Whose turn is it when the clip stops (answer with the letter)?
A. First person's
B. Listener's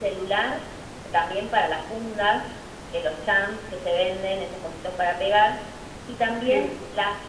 A